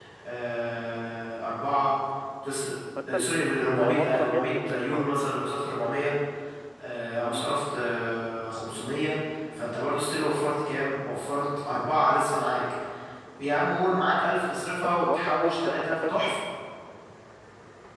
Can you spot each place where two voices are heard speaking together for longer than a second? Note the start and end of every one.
3.8-5.1, 14.8-16.3

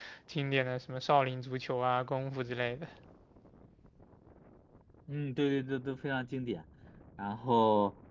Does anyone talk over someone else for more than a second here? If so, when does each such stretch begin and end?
none

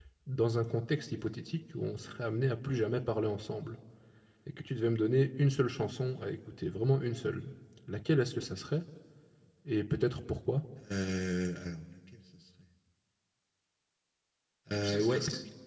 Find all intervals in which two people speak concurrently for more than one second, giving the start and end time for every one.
none

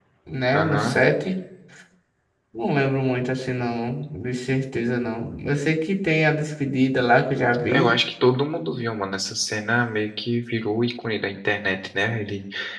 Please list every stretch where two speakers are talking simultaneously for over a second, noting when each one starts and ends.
none

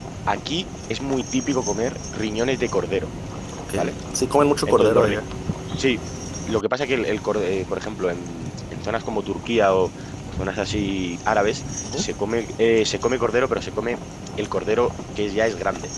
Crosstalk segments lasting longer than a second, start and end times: none

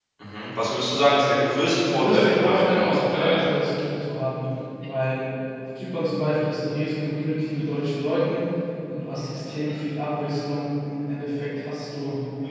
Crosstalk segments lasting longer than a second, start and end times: 1.7-3.5

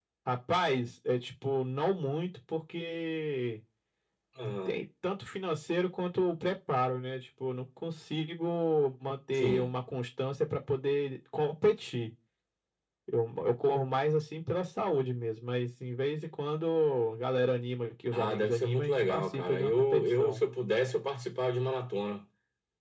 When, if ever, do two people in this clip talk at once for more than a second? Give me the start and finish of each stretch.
18.1-20.4

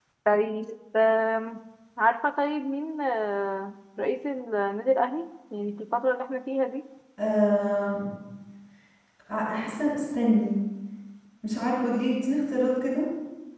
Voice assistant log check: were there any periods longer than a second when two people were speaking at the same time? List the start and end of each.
none

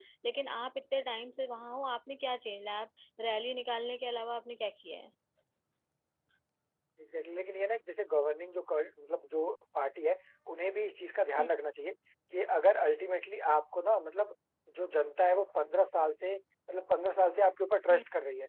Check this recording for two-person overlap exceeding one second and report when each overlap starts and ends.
none

